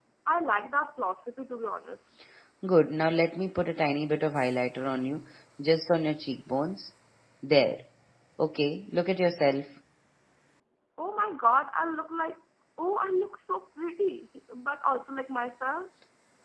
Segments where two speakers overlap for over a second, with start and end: none

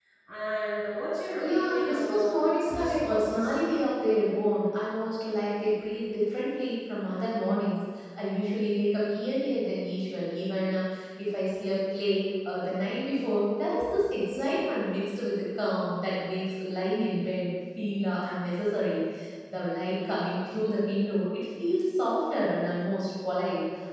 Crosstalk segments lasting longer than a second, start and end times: 1.4-3.5

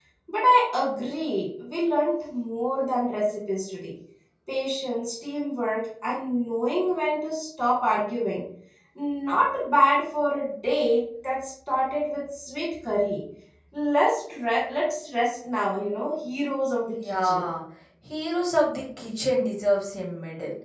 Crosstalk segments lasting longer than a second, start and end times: none

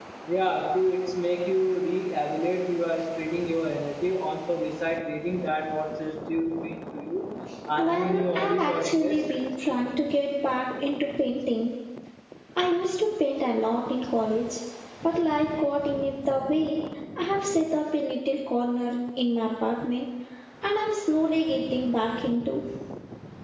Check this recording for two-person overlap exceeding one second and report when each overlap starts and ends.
7.9-9.2

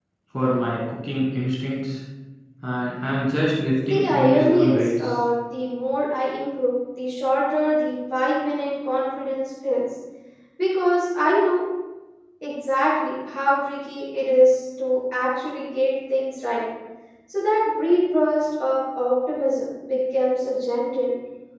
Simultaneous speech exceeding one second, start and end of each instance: 3.9-5.1

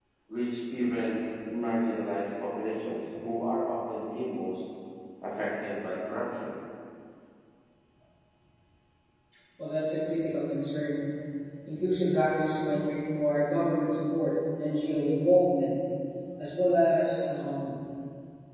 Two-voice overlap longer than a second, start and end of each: none

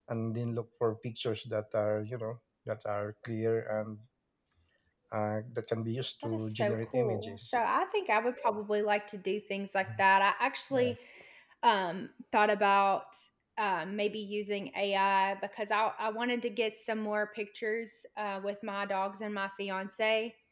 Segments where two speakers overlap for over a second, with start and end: 6.2-7.5

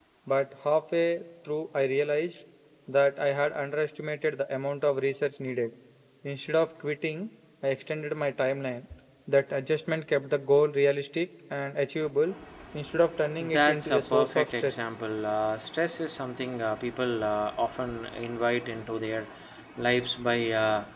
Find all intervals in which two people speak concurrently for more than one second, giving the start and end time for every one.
13.5-14.7

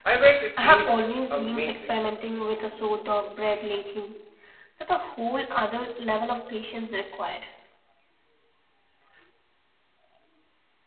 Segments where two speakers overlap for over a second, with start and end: 0.6-1.9

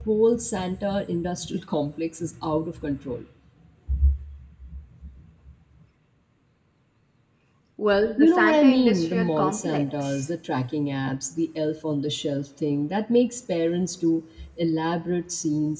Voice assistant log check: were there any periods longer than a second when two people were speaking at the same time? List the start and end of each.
8.2-10.2

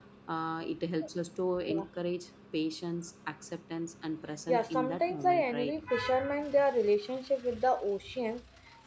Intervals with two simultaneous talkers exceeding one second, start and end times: 4.5-5.7

